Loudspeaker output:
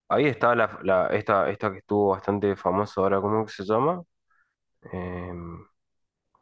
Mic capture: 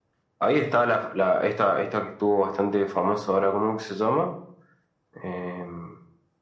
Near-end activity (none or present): none